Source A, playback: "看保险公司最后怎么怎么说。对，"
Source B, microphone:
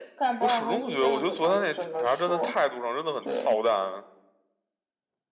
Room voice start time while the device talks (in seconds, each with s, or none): 0.4 s